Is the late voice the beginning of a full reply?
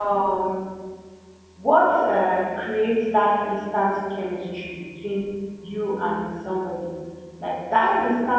No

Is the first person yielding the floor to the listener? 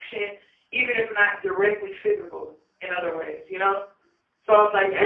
No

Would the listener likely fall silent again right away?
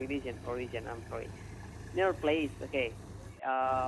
Yes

